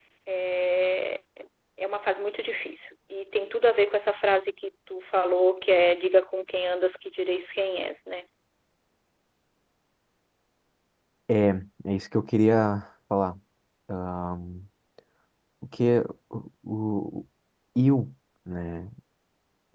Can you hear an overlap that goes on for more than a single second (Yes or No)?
No